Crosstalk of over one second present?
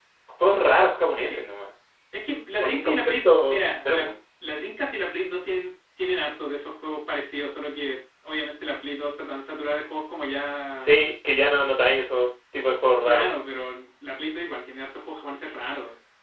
Yes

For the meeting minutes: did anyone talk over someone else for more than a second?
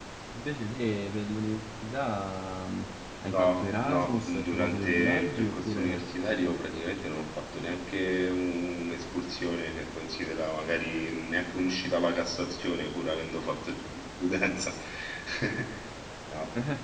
Yes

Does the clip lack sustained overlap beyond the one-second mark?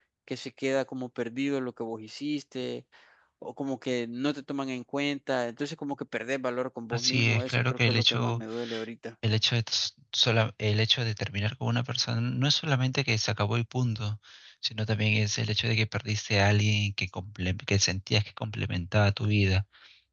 No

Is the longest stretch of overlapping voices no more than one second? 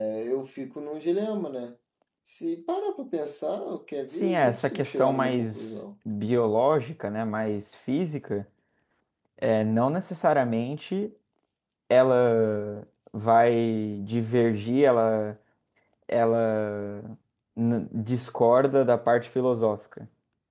No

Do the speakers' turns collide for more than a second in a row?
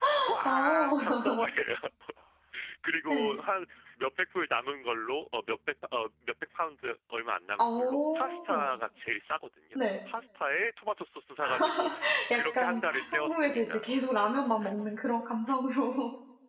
Yes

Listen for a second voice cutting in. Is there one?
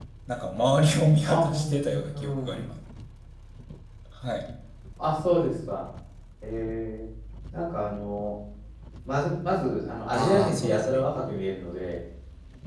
Yes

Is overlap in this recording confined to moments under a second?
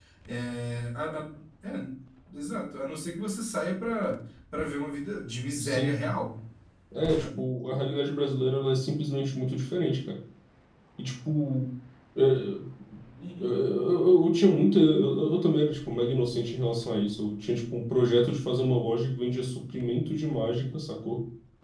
Yes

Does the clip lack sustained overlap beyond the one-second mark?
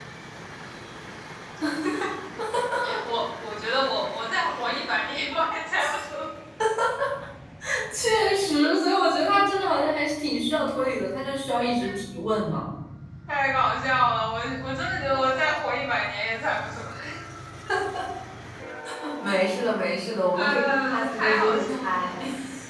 No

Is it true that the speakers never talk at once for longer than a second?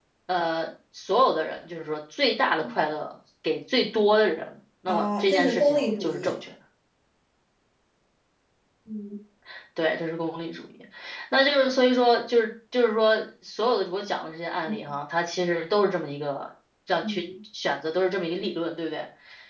No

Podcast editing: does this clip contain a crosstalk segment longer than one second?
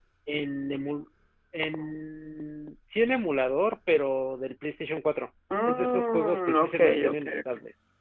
Yes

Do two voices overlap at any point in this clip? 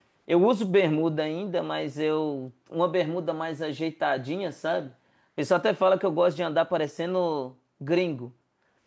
No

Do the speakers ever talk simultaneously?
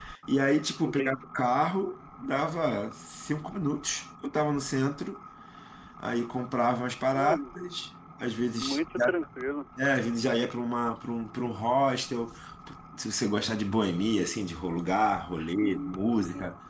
Yes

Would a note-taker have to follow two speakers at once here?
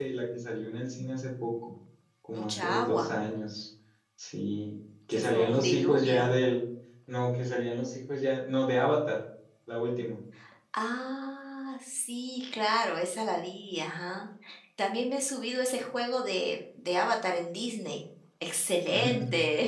Yes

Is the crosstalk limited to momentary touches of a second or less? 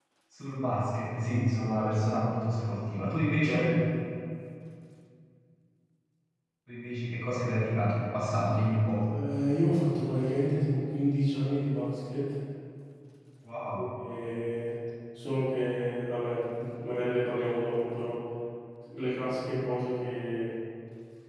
Yes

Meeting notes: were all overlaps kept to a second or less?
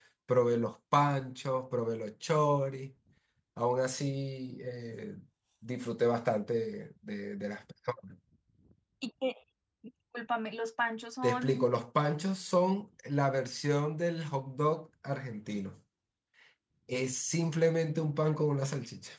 Yes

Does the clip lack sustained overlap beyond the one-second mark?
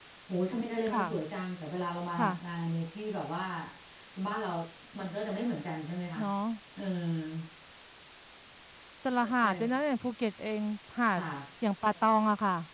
Yes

